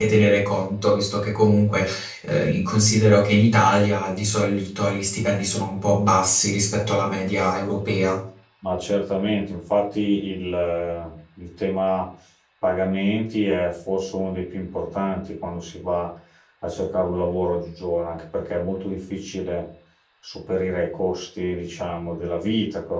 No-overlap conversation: Yes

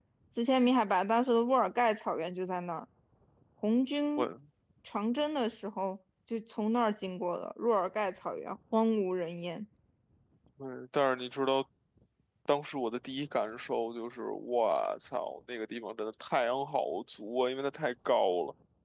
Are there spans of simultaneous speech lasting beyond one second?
No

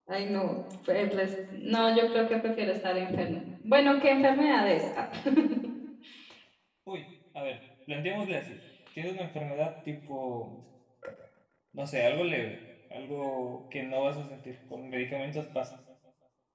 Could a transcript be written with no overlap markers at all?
Yes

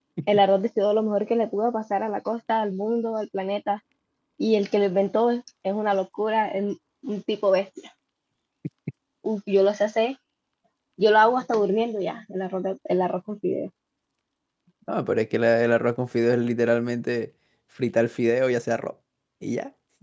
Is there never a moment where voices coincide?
Yes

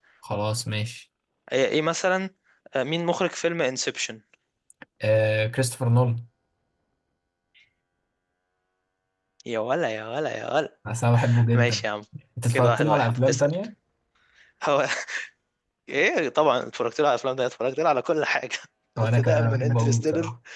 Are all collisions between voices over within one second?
No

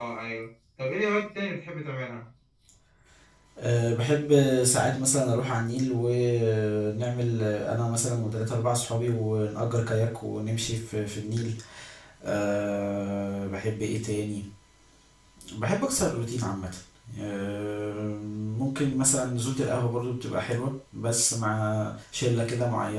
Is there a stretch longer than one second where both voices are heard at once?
No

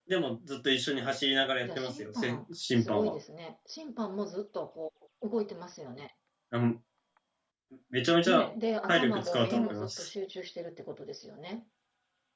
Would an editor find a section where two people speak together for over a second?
Yes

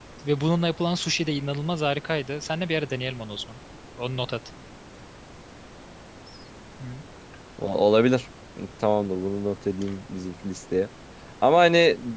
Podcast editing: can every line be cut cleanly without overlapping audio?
Yes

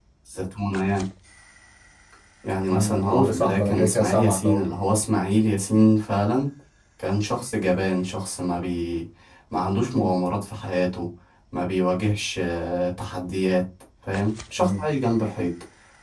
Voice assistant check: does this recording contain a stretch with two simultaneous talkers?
Yes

